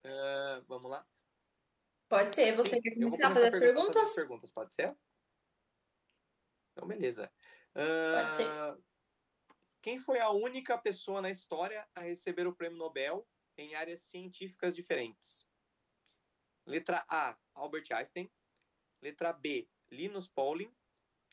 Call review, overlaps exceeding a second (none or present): present